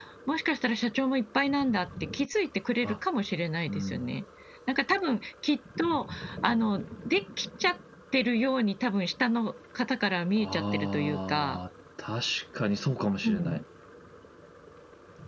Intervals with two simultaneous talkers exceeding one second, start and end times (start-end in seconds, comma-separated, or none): 10.4-11.6